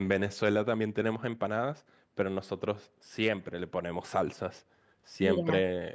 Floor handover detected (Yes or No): No